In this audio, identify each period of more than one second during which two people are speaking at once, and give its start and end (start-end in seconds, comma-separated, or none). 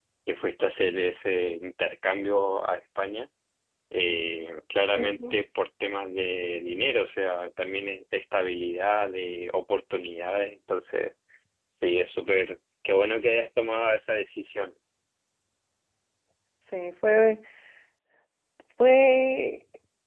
none